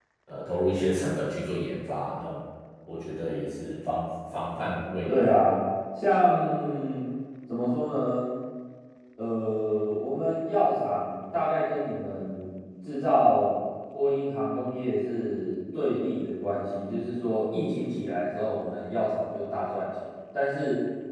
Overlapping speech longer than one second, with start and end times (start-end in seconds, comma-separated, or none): none